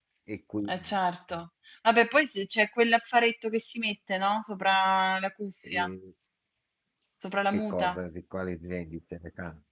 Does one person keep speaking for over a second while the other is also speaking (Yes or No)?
No